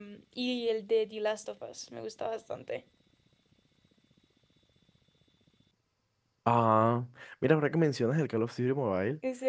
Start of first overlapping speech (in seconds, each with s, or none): none